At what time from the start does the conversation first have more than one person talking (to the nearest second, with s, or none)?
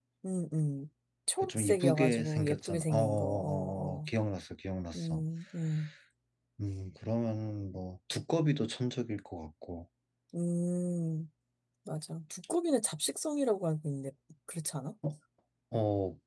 1 s